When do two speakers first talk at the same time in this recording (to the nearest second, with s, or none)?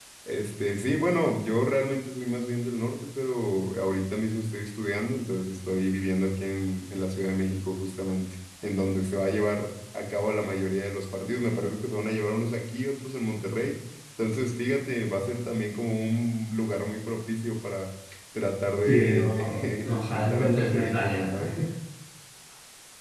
19 s